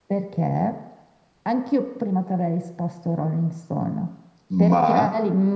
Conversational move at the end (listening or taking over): listening